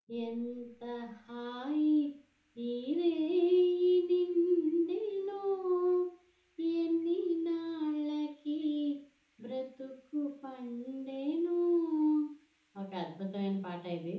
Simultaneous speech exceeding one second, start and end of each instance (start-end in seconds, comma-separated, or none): none